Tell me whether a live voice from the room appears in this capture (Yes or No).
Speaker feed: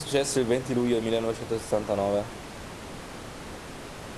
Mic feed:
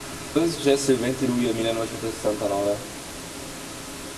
No